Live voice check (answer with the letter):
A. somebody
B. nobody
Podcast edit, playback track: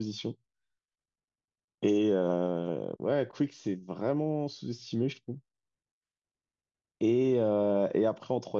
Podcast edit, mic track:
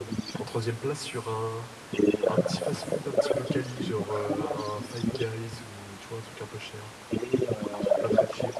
A